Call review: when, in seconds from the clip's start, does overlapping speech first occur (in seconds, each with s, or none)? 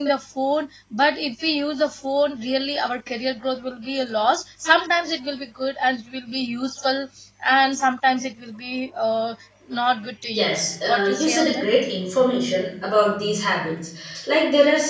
10.3 s